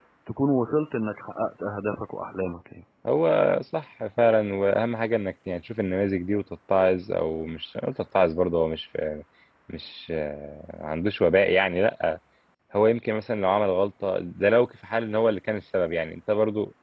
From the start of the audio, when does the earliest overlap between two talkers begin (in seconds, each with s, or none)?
none